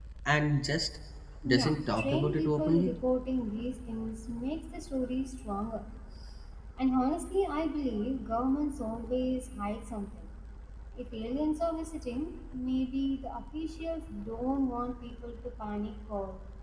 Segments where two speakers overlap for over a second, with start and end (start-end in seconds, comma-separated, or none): 1.5-3.0